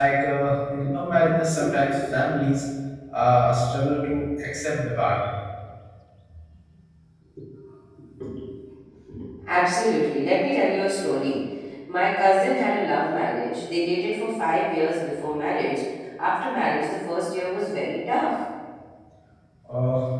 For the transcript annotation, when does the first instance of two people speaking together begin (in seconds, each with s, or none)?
none